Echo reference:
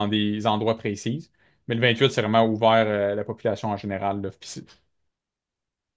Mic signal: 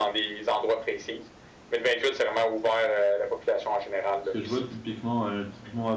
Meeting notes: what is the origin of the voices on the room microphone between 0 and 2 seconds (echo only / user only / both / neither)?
echo only